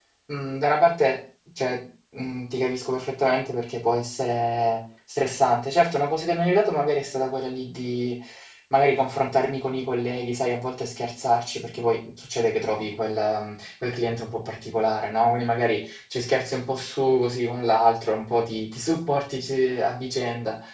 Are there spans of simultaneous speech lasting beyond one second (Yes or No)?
No